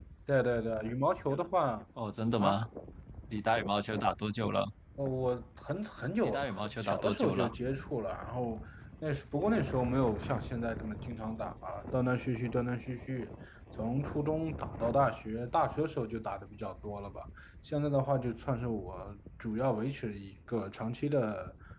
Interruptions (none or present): present